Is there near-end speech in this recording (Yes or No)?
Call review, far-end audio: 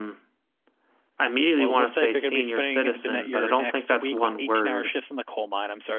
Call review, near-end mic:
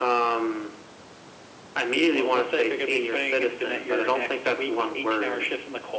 No